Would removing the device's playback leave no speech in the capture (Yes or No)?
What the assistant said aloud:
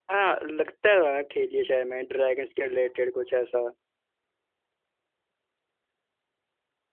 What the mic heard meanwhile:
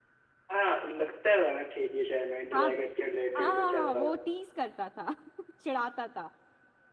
No